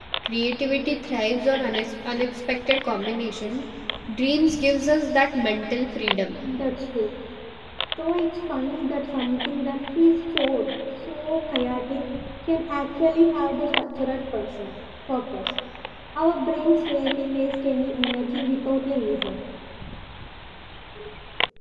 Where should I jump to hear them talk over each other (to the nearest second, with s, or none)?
none